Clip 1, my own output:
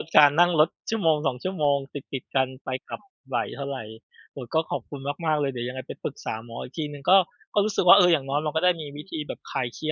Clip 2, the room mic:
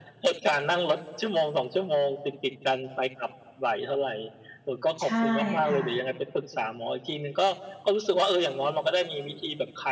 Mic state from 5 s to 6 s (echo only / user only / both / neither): both